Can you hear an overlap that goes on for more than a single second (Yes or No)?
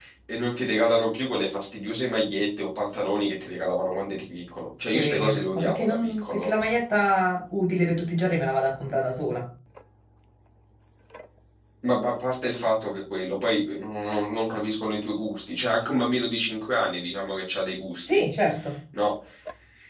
Yes